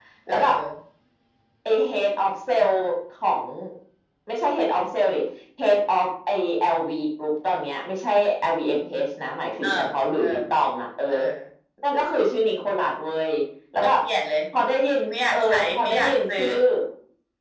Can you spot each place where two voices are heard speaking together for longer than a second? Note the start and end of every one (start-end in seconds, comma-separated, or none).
15.1-16.5